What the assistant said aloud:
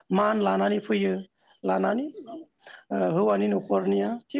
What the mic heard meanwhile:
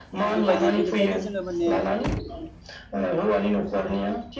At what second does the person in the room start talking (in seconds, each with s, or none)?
0.4 s